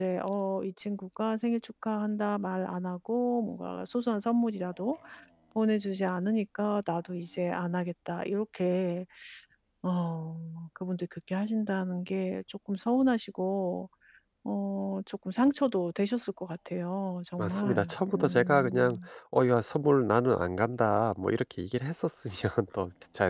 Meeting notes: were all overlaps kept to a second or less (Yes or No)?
No